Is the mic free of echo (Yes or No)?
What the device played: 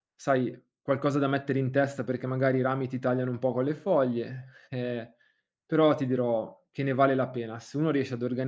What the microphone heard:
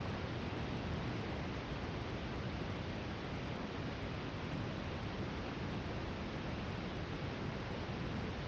Yes